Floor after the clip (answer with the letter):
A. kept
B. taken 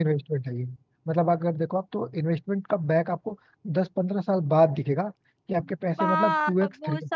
B